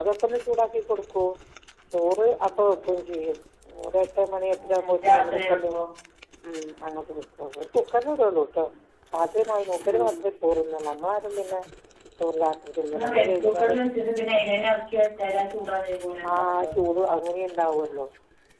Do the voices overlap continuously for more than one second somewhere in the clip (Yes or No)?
Yes